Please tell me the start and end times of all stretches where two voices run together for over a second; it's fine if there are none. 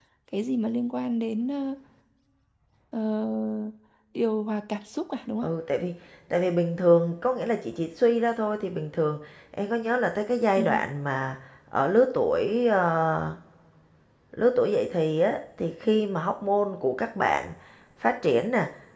none

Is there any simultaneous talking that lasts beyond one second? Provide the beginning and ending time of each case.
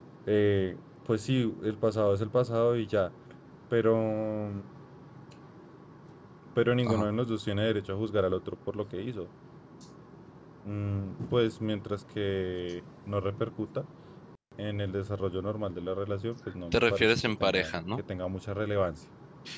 16.7-18.0

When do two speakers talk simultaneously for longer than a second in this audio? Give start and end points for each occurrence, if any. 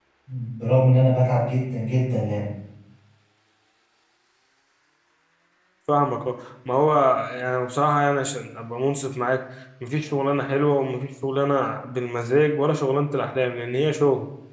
none

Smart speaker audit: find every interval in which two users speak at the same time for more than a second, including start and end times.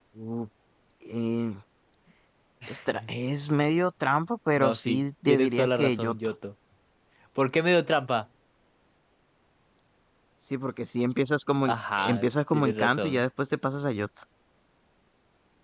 4.6-6.2, 11.7-13.2

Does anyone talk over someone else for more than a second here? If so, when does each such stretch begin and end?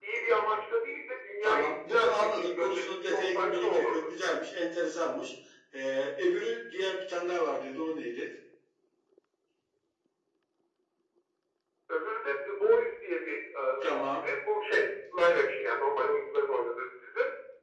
1.4-4.1

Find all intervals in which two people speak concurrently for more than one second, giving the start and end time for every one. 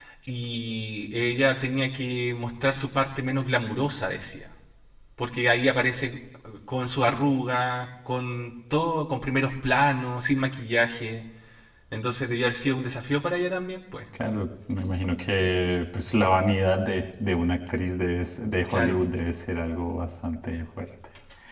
none

